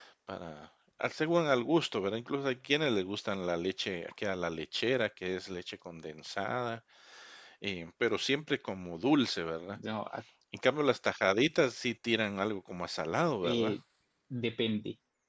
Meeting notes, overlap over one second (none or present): none